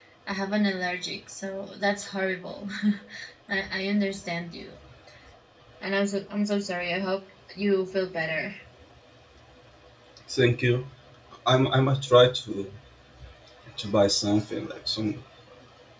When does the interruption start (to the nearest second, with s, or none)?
none